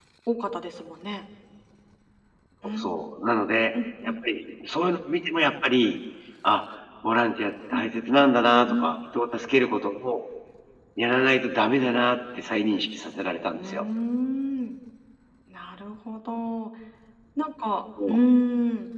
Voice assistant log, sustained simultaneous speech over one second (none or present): none